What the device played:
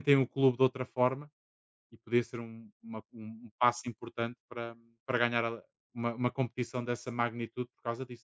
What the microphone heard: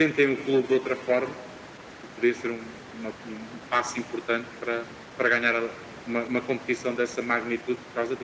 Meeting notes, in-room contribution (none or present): none